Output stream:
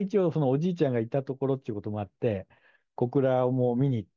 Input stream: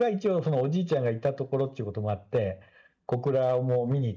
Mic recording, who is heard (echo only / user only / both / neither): echo only